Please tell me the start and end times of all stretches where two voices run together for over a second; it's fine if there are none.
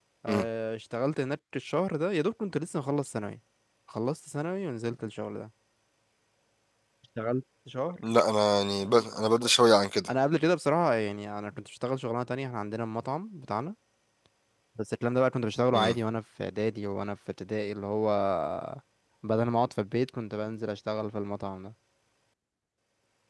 none

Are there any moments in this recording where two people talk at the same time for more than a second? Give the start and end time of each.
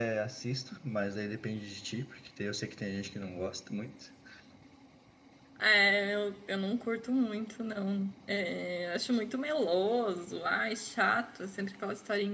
none

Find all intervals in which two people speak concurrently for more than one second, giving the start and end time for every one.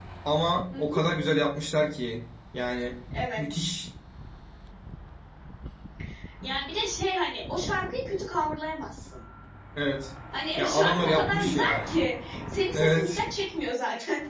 10.6-12.0

